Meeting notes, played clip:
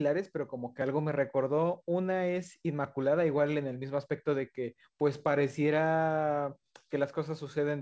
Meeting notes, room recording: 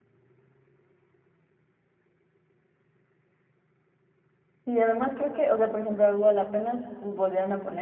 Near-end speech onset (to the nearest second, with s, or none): 5 s